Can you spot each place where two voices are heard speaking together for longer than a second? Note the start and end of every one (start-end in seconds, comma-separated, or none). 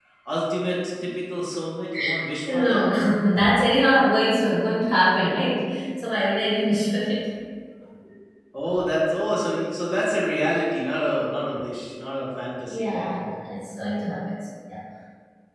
none